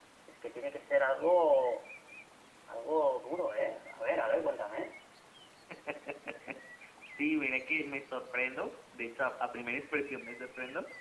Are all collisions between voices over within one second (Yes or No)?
Yes